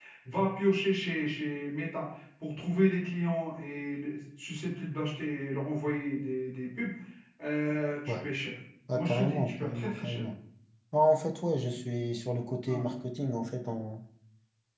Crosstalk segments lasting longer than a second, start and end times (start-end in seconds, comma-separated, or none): 8.9-10.2